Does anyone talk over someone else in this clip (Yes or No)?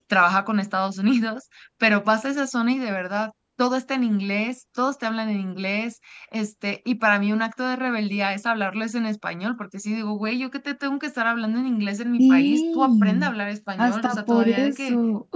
Yes